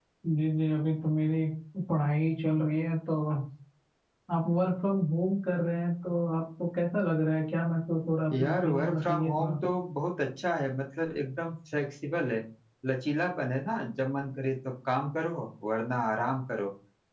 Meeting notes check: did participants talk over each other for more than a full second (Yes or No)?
Yes